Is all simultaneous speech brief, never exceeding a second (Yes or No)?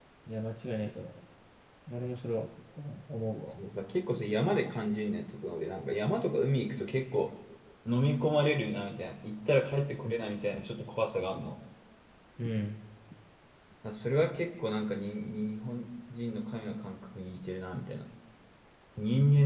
Yes